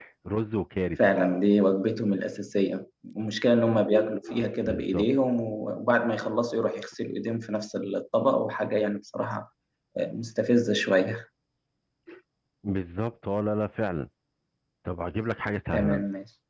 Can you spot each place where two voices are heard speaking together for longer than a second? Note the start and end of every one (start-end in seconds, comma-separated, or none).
none